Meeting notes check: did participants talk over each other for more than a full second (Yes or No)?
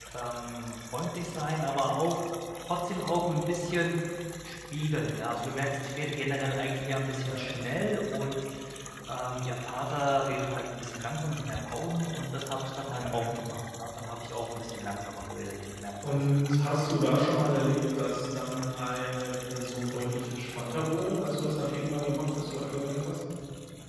No